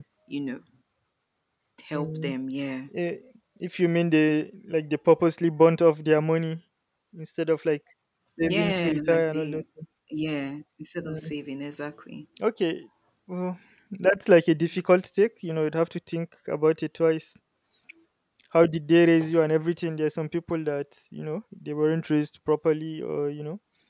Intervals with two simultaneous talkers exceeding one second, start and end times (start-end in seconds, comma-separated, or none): 8.4-9.6